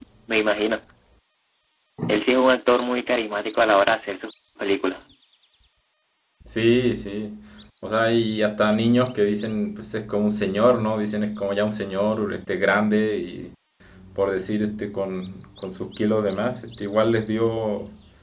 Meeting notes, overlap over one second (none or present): none